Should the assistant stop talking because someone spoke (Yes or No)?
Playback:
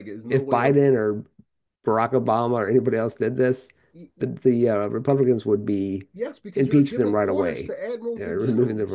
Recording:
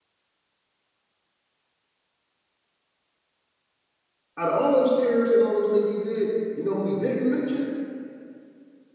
Yes